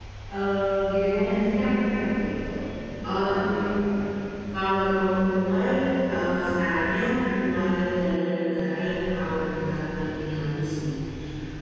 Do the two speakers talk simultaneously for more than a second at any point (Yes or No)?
No